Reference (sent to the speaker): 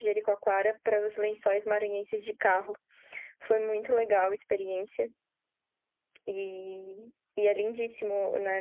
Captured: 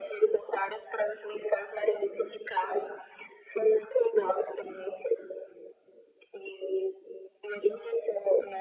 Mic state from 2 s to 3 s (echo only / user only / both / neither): echo only